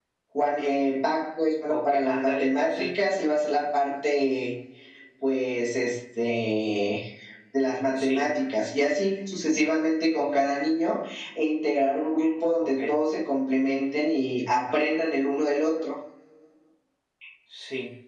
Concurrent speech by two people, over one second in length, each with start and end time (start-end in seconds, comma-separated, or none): 1.7-2.9